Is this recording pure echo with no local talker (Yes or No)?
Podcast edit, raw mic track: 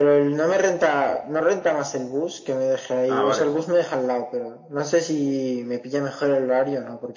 No